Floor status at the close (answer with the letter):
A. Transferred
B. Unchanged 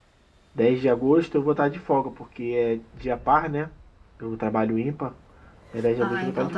A